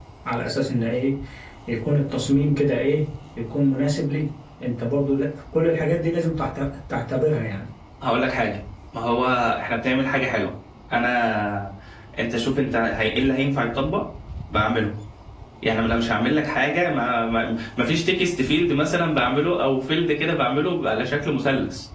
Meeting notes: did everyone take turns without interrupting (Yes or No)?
Yes